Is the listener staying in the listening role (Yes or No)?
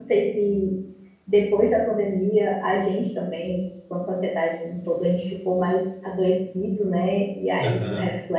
Yes